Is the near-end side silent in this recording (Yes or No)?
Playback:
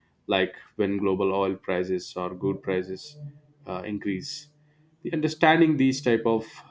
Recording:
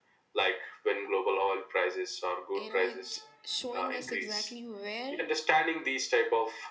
No